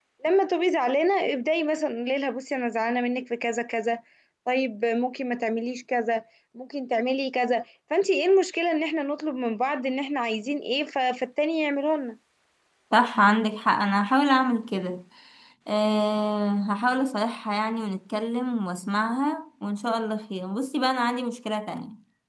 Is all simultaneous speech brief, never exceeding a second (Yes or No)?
Yes